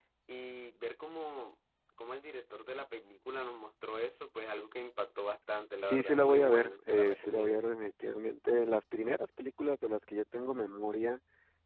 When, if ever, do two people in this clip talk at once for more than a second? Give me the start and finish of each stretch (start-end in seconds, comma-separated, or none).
5.8-7.6